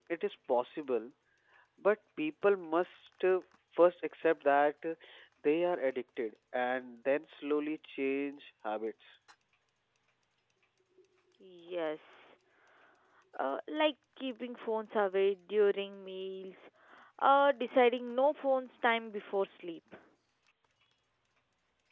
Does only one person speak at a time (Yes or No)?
Yes